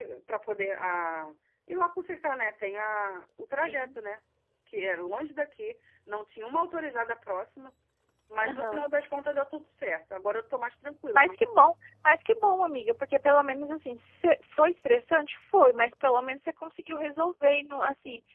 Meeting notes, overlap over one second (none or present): none